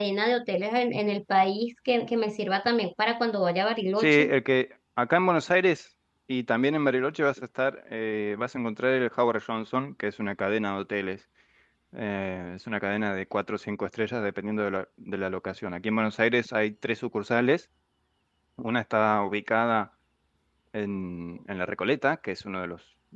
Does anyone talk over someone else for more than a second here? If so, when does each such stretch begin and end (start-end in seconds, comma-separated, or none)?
none